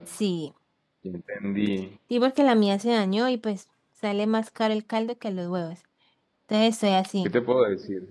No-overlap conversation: Yes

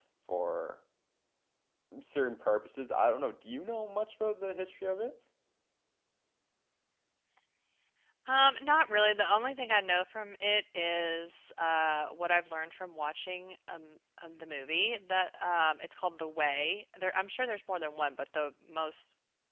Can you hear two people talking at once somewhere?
No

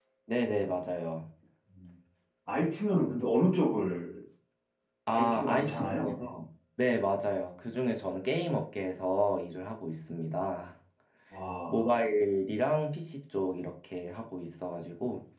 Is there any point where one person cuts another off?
Yes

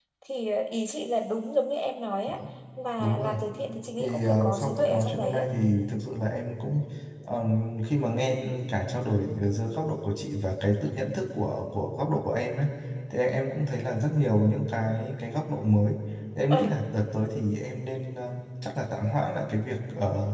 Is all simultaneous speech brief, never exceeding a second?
No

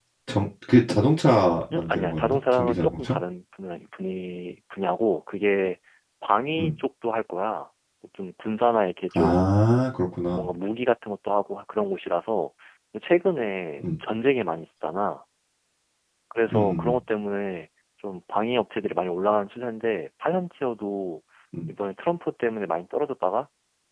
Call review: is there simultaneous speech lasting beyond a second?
Yes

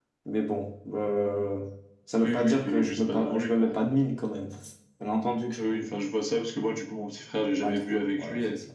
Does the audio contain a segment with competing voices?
Yes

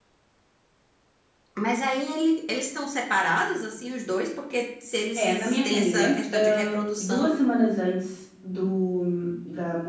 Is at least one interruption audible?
Yes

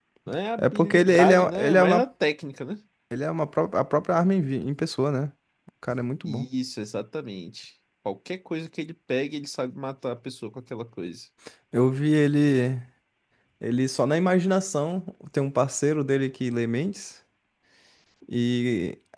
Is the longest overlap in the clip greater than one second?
Yes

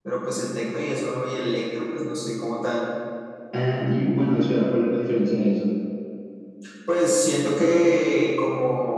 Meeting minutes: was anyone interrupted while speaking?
No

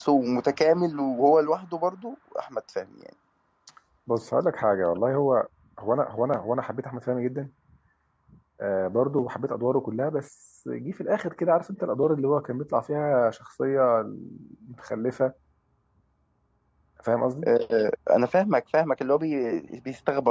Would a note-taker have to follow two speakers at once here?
No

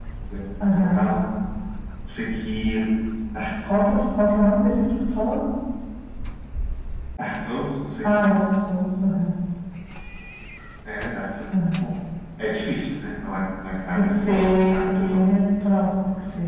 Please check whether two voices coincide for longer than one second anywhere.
Yes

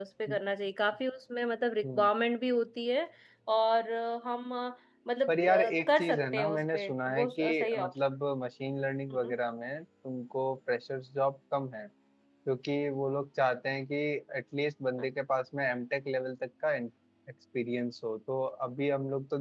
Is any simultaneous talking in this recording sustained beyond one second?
Yes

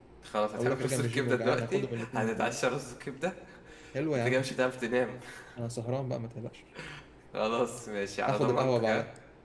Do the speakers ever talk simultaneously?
Yes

